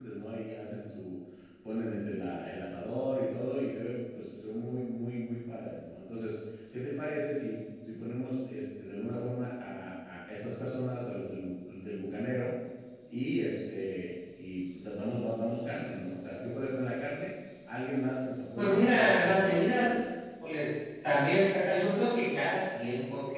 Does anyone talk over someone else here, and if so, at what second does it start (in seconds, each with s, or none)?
18.6 s